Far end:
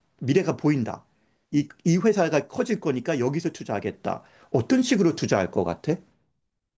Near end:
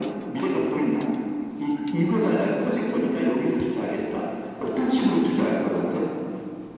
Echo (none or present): present